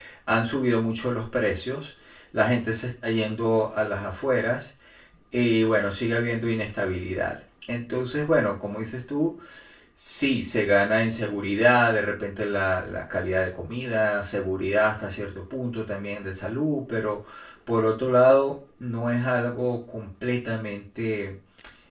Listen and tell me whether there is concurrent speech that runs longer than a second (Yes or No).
No